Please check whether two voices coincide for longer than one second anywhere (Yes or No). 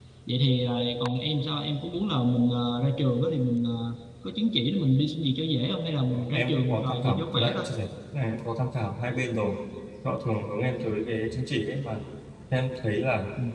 Yes